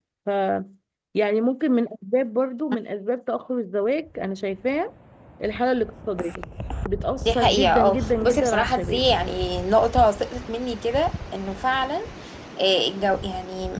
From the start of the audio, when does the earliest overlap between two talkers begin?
7.4 s

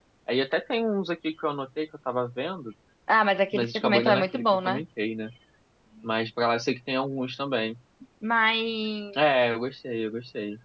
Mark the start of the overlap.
3.5 s

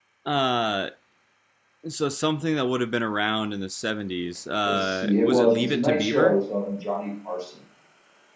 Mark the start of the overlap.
4.7 s

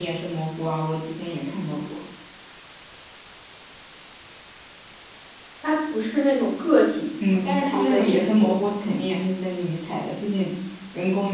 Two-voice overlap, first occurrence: 7.2 s

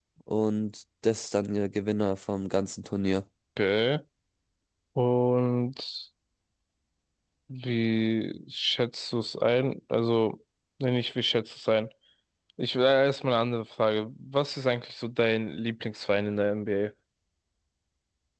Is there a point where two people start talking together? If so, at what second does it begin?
none

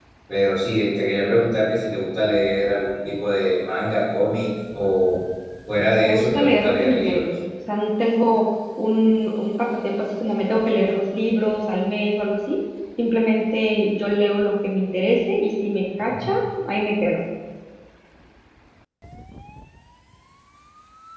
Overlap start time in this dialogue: 6.0 s

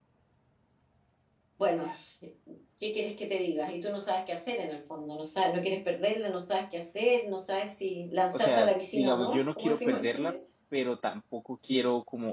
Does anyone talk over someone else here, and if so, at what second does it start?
8.3 s

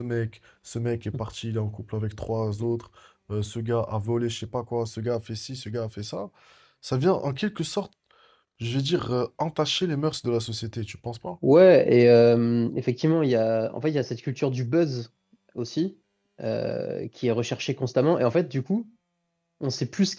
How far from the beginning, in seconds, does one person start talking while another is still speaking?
none

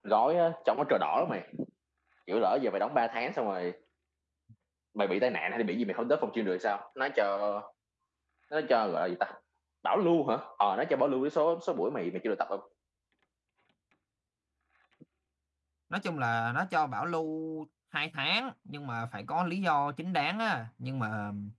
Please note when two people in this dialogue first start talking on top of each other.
none

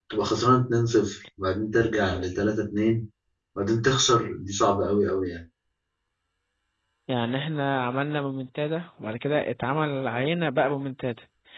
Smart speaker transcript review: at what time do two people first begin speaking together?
none

